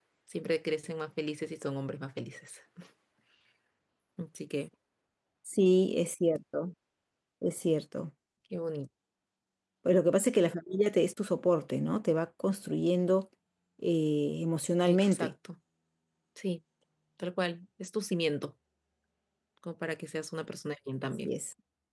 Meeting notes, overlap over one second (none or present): none